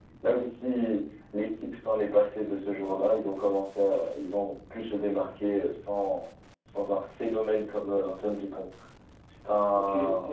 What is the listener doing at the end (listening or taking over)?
taking over